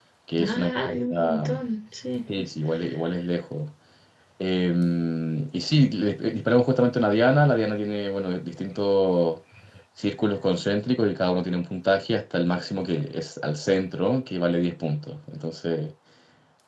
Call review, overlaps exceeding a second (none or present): present